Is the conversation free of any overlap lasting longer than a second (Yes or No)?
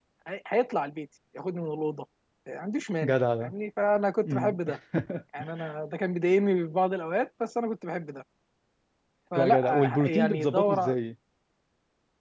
No